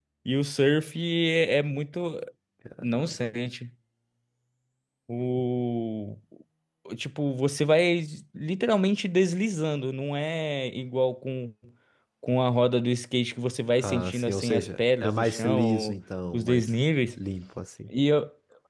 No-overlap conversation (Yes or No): No